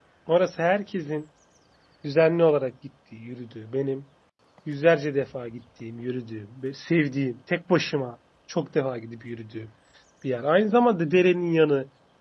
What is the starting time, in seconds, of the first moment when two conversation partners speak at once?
none

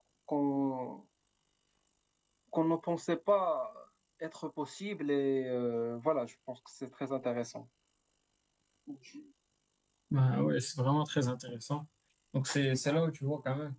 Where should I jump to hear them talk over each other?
none

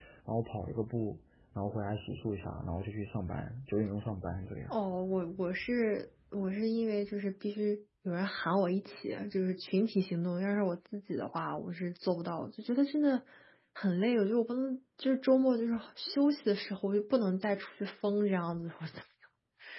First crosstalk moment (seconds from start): none

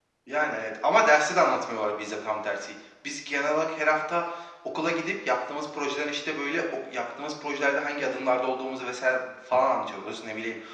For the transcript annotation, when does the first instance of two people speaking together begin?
none

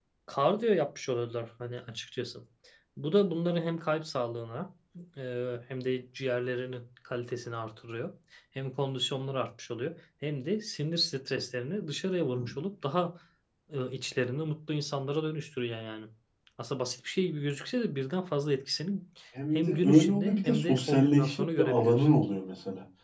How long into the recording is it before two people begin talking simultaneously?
19.5 s

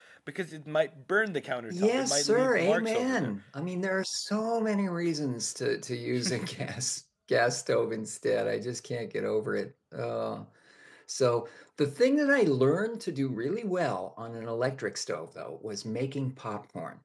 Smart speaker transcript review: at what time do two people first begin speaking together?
1.7 s

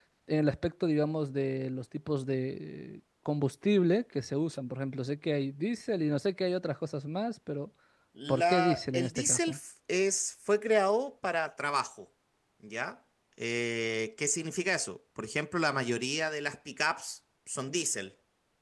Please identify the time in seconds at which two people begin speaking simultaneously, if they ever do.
8.3 s

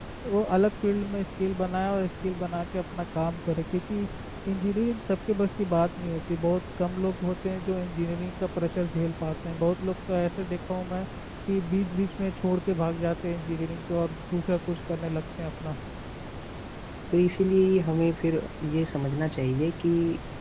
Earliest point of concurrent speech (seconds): none

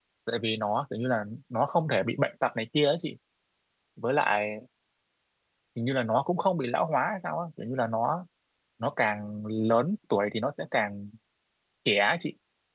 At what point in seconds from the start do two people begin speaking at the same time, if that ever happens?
none

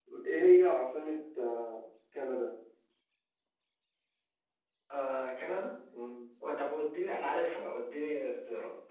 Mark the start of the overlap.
none

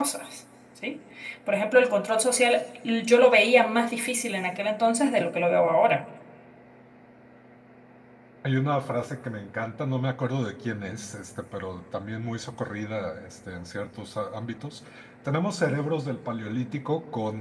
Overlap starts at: none

